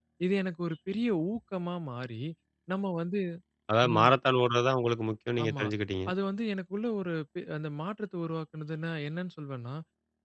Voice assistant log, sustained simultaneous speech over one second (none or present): none